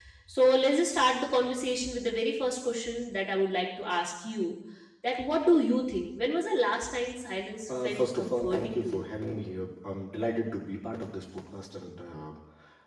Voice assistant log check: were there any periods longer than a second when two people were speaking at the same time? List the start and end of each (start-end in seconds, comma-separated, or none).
7.8-9.1